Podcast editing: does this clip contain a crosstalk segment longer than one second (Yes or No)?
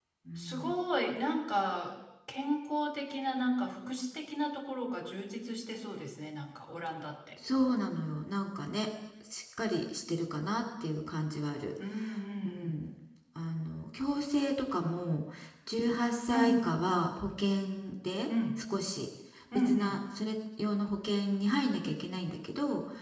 No